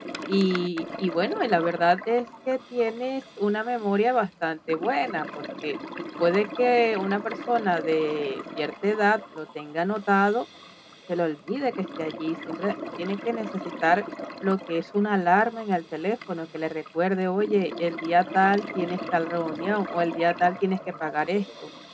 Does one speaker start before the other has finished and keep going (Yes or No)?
No